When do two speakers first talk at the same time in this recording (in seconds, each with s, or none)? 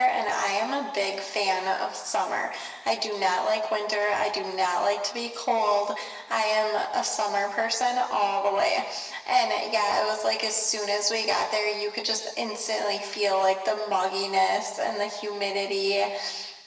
none